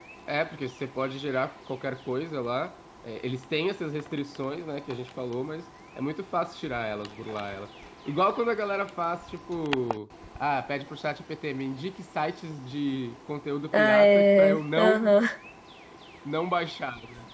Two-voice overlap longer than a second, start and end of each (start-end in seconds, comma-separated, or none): 13.7-15.1